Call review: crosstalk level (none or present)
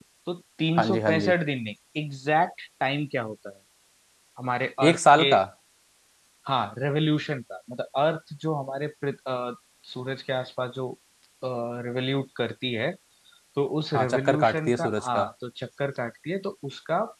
present